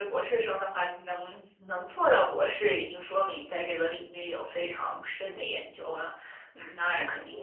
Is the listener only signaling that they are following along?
Yes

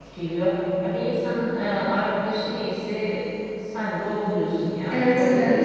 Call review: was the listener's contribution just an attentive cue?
No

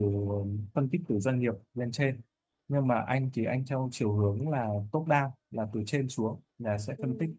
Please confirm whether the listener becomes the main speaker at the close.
No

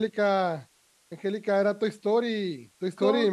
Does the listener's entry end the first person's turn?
No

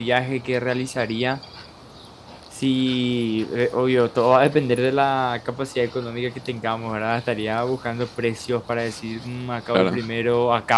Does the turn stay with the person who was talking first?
Yes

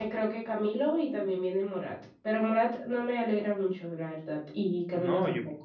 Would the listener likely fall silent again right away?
No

